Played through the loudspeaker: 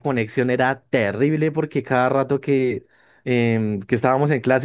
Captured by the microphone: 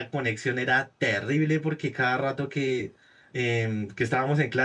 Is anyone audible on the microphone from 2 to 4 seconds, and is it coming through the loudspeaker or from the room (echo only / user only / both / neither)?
echo only